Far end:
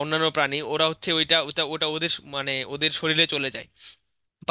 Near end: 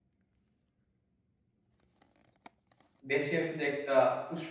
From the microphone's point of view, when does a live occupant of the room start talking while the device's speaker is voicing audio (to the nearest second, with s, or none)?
3 s